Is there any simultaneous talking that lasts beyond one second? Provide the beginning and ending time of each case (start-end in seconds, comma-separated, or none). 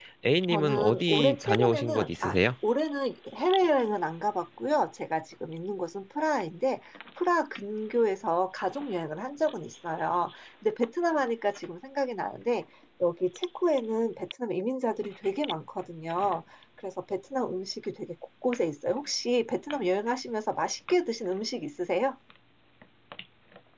0.5-2.4